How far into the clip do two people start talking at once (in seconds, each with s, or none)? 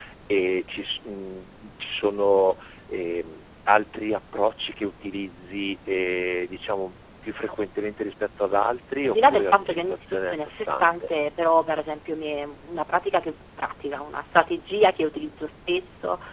9.0 s